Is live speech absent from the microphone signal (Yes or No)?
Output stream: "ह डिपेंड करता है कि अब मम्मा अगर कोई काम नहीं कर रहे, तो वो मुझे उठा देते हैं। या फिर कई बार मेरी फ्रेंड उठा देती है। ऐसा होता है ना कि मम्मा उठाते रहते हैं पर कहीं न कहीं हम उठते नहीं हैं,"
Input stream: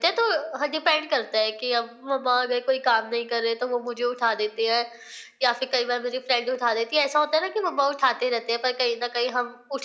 Yes